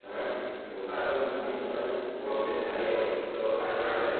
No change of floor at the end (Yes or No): Yes